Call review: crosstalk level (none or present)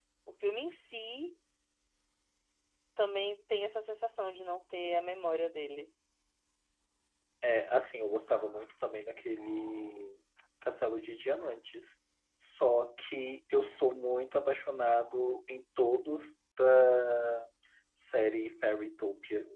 none